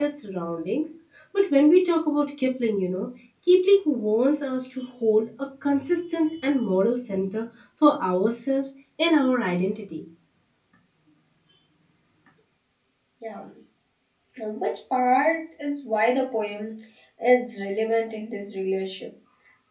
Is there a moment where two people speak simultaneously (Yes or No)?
No